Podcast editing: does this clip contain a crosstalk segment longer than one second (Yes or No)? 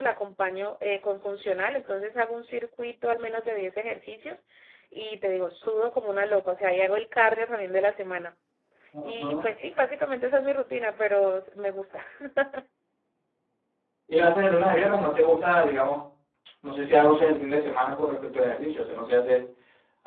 No